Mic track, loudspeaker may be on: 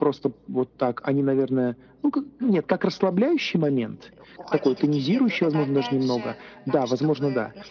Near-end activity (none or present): present